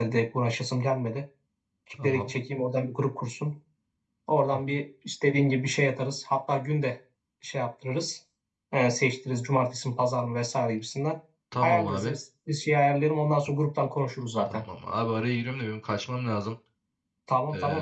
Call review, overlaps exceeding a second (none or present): none